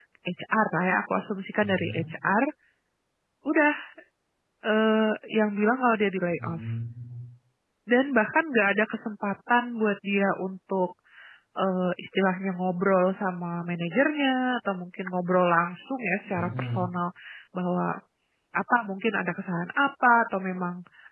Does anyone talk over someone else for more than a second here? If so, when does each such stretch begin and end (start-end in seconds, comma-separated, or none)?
none